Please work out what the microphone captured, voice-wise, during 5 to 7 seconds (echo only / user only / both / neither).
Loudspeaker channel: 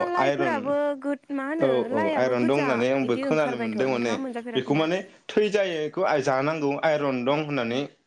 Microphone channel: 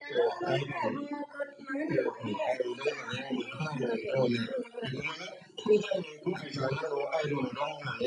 echo only